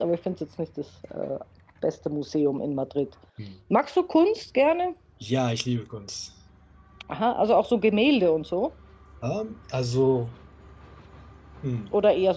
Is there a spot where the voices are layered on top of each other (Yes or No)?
No